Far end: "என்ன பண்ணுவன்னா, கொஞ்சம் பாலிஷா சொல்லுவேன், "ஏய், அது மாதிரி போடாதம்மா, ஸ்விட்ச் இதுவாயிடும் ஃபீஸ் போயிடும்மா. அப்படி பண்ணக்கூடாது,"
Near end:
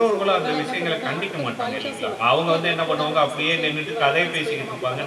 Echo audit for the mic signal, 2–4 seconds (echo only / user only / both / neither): both